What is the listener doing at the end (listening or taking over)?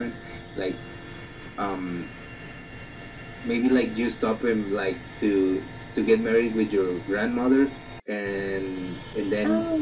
listening